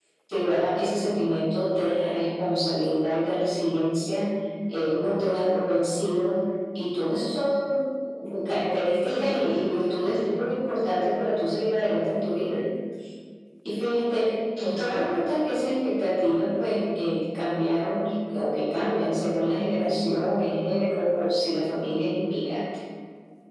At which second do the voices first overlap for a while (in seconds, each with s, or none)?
9.0 s